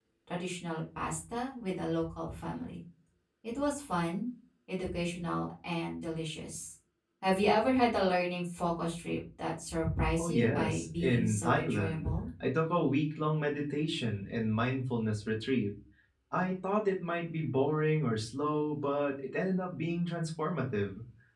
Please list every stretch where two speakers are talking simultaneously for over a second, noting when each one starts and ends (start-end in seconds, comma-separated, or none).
10.2-12.1